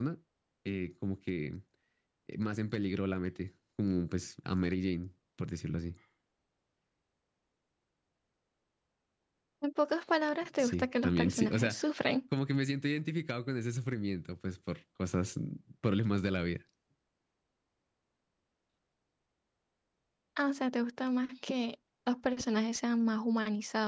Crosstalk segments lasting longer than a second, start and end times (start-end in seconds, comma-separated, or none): 10.6-11.8